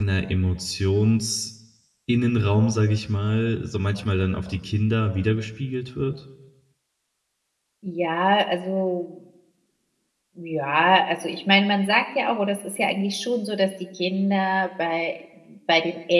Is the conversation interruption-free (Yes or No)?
Yes